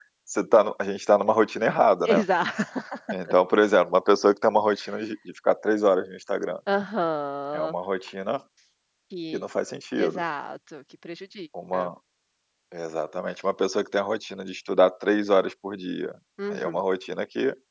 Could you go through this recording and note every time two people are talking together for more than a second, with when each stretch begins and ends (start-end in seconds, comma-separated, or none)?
none